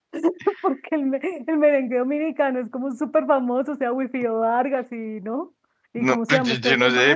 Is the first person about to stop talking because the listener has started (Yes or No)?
Yes